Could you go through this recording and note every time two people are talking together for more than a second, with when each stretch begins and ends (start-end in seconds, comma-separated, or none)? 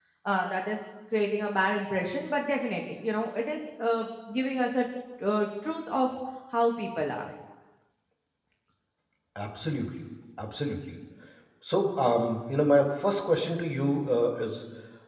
none